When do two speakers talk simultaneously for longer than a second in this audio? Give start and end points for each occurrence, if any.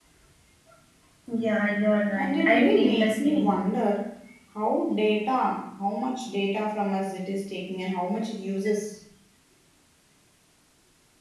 2.2-3.7

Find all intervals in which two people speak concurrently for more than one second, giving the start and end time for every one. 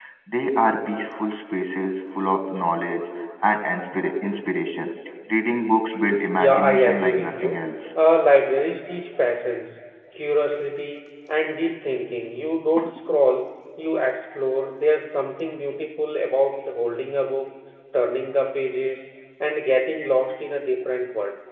6.4-7.6

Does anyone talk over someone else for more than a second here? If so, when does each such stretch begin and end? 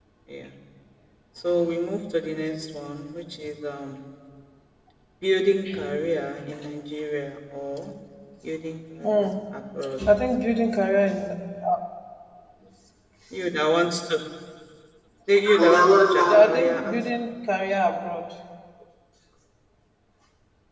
15.6-17.0

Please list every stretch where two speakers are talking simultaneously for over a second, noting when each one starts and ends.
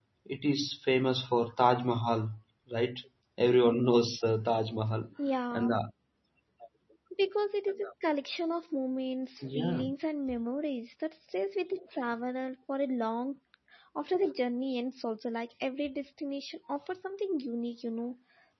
none

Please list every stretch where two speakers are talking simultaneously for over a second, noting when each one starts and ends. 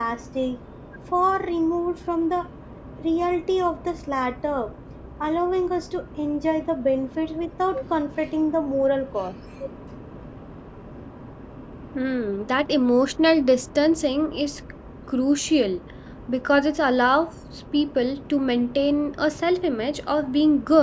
none

